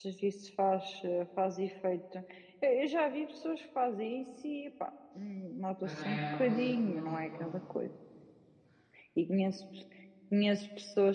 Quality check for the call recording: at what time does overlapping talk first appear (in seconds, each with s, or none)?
5.8 s